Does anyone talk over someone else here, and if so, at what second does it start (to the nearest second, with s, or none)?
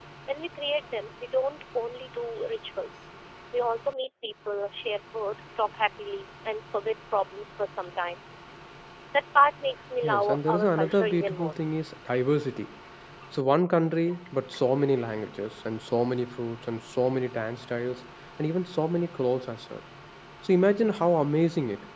10 s